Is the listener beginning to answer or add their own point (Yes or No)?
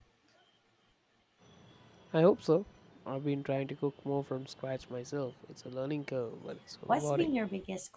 Yes